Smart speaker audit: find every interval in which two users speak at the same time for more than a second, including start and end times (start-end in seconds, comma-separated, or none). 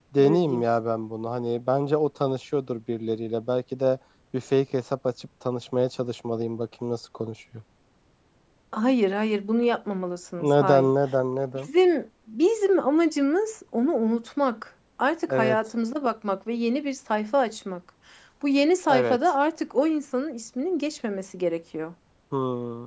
none